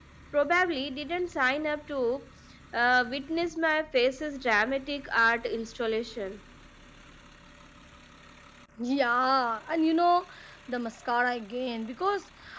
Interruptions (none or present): none